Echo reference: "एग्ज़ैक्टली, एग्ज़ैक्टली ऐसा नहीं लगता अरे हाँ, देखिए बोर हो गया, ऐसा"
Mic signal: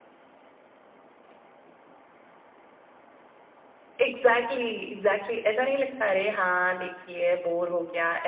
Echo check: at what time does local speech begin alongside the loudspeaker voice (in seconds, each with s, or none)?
none